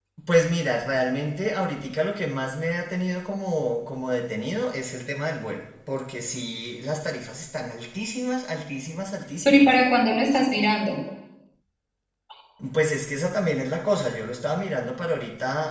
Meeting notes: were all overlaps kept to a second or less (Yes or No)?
Yes